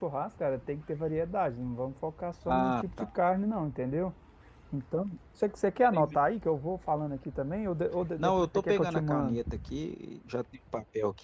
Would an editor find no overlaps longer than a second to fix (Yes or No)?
No